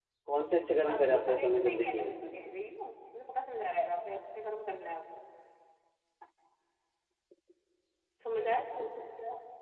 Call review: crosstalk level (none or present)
present